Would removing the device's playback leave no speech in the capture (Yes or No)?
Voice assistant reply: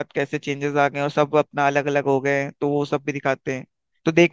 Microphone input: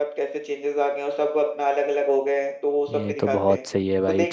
No